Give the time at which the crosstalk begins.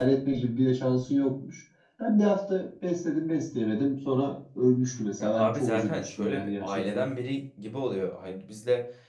5.2 s

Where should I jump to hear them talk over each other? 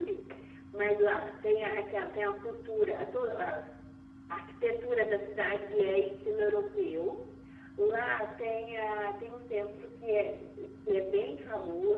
none

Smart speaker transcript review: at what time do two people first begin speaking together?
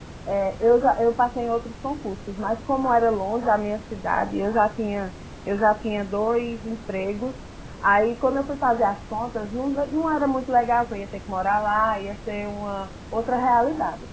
none

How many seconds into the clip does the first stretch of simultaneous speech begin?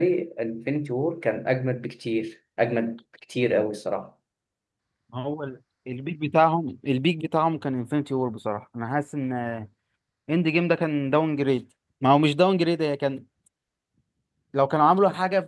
none

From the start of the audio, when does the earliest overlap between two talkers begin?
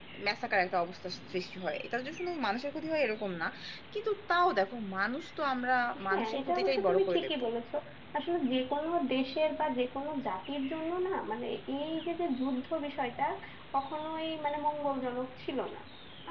6.0 s

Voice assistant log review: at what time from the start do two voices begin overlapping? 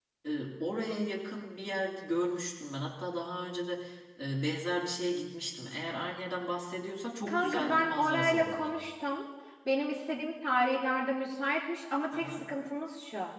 7.3 s

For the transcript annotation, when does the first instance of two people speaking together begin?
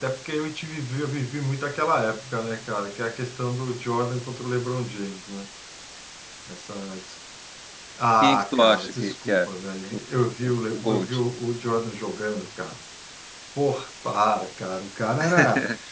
8.2 s

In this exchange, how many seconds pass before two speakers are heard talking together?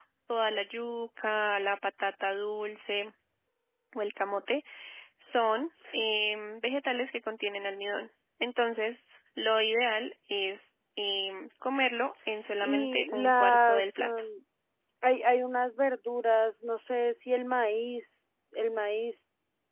12.6 s

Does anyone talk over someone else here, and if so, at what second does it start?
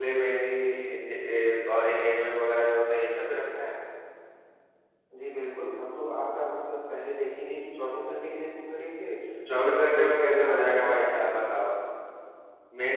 9.6 s

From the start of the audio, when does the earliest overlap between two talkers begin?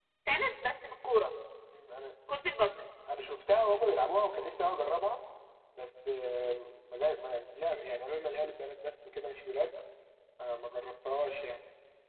none

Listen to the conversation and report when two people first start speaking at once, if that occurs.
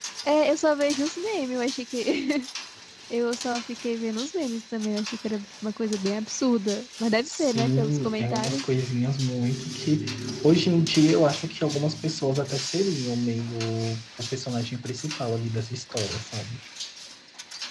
7.2 s

